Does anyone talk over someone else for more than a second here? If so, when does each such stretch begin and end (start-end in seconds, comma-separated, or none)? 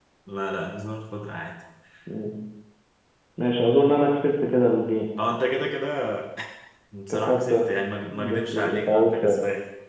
8.1-9.4